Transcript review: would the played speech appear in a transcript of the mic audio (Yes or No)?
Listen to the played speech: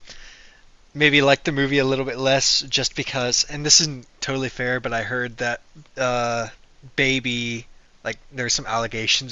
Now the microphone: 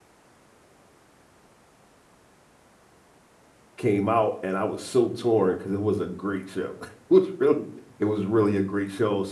No